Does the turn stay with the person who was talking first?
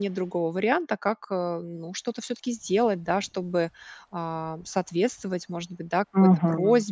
Yes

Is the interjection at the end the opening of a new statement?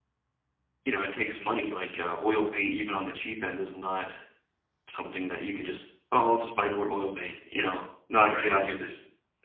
Yes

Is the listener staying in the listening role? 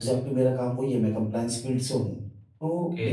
No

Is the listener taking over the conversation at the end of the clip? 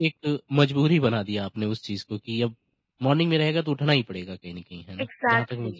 Yes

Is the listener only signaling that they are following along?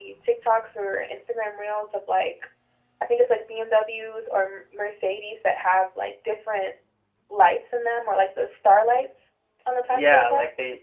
No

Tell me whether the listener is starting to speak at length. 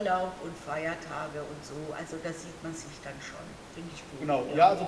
Yes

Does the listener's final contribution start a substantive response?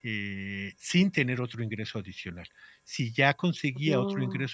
No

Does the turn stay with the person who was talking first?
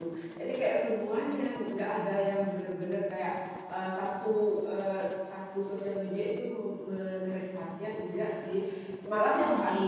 Yes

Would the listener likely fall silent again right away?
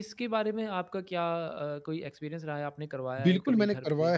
No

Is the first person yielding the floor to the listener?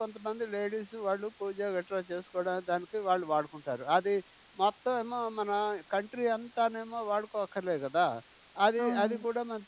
No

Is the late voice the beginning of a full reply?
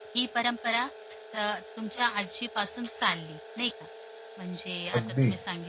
No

